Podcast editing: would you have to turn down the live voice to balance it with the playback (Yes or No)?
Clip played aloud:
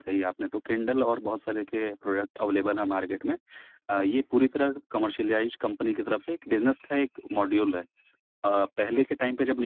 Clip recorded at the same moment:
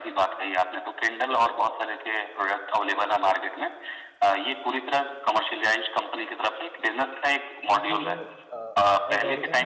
No